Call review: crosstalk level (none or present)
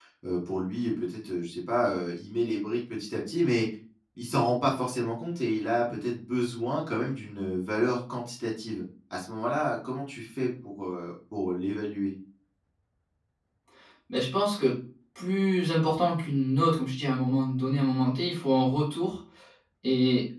none